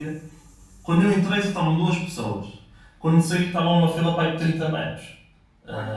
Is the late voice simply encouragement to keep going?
Yes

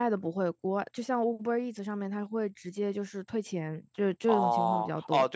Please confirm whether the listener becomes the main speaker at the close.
Yes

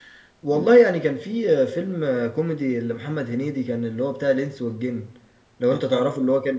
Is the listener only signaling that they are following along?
Yes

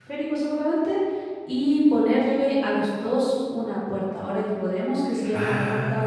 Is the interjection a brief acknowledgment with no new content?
Yes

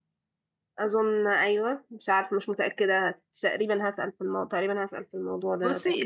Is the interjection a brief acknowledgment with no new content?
No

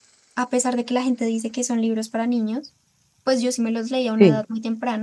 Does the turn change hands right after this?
No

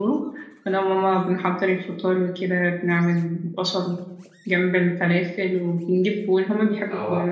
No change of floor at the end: Yes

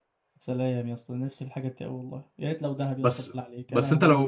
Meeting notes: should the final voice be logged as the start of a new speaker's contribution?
Yes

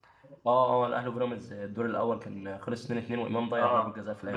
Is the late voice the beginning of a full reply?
Yes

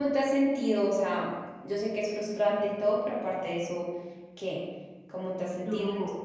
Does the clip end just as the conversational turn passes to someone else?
Yes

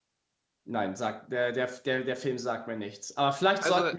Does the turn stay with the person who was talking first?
Yes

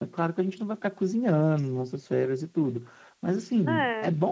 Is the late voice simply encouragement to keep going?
Yes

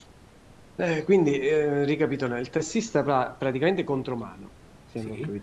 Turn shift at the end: No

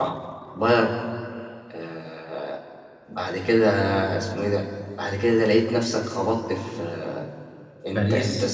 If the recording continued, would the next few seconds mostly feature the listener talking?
No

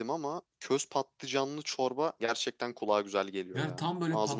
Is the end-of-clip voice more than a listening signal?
Yes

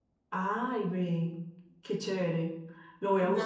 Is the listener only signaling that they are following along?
No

